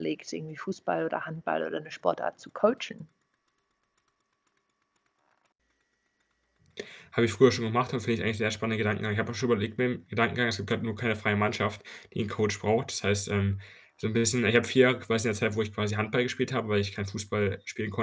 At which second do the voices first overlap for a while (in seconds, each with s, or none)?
none